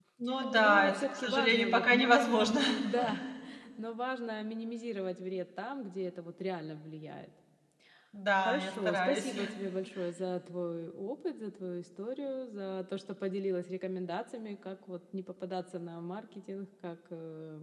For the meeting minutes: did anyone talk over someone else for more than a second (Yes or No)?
Yes